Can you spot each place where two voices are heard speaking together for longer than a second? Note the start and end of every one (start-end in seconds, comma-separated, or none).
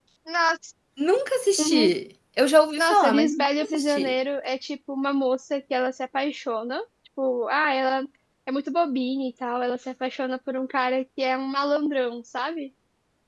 2.8-4.2